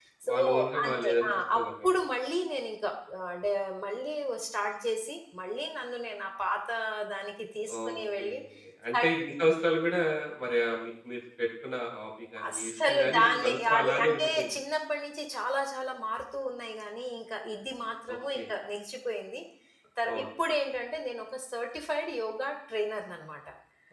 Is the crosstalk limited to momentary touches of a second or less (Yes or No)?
No